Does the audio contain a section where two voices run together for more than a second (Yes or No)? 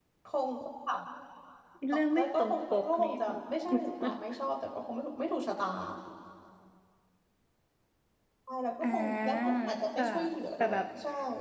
Yes